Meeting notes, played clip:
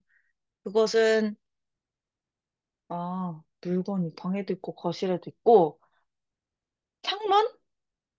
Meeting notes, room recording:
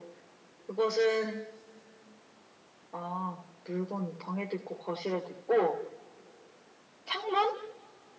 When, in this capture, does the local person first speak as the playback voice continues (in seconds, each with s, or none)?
none